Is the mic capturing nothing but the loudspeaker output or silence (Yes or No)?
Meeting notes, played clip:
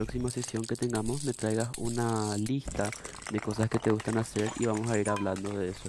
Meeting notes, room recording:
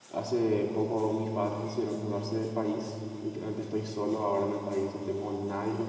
No